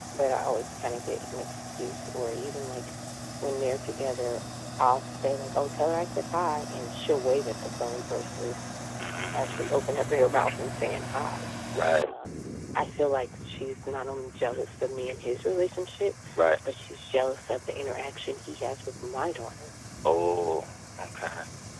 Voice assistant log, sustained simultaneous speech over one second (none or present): none